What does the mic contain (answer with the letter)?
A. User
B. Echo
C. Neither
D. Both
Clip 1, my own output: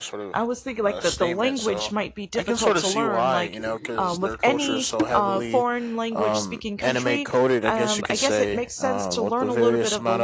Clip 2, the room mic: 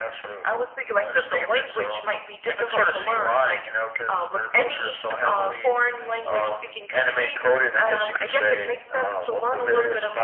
B